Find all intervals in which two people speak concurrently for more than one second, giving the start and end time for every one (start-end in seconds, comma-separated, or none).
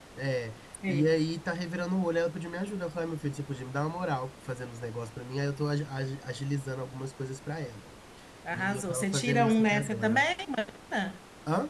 8.5-10.2